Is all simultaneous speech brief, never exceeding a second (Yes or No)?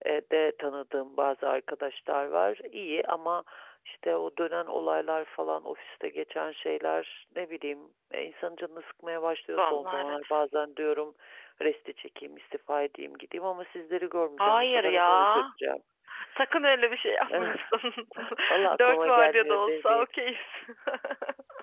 No